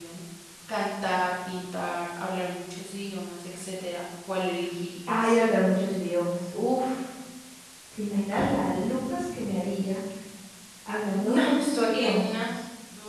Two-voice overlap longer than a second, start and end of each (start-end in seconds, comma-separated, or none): 11.1-12.5